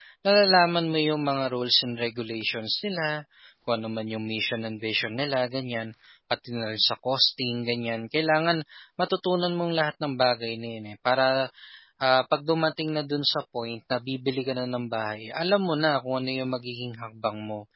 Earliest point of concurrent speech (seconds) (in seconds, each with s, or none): none